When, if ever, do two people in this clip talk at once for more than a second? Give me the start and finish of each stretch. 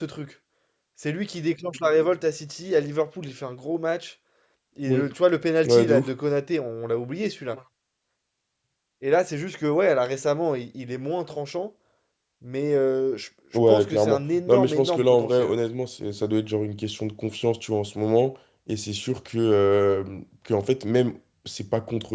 13.7-15.5

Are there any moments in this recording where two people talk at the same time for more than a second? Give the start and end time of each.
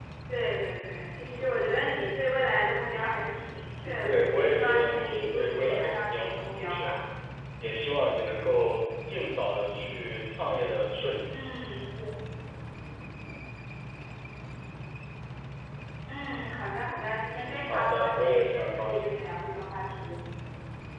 4.1-6.9, 17.3-19.2

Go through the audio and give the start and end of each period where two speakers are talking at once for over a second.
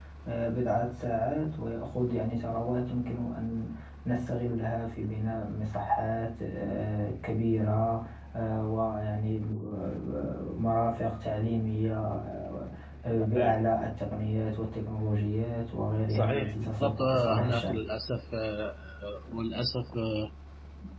16.1-17.8

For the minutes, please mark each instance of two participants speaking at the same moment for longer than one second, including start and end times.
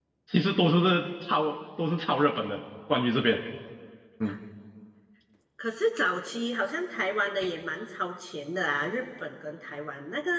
none

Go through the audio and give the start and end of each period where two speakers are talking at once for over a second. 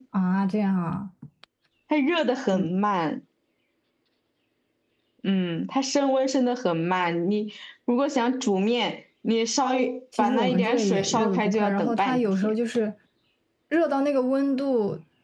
10.2-12.6

